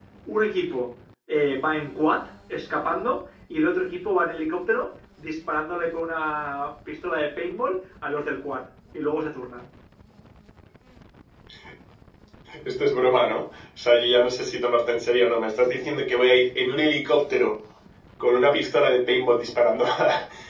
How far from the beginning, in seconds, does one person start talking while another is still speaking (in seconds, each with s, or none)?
none